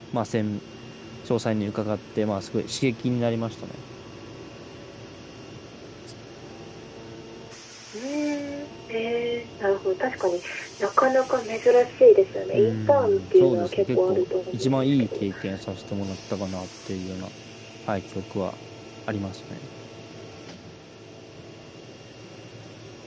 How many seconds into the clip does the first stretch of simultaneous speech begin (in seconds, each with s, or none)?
12.5 s